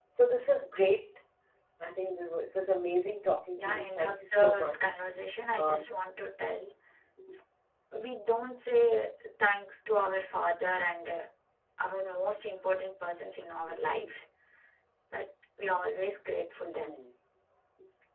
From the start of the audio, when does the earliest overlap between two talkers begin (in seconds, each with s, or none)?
3.6 s